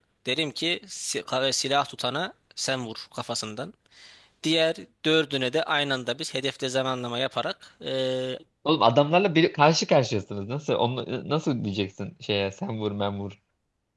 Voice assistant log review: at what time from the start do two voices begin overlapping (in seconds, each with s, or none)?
none